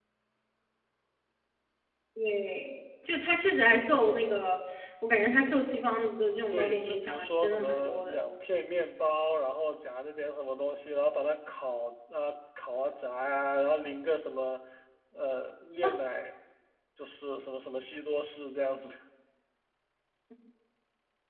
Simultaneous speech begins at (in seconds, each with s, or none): 6.5 s